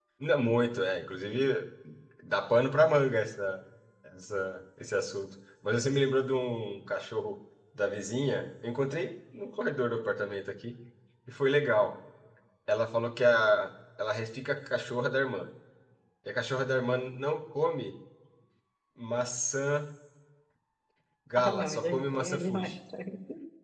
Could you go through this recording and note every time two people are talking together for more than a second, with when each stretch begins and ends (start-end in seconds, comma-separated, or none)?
21.4-22.7